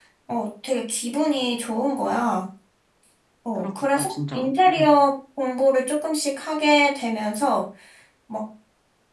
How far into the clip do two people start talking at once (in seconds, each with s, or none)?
3.6 s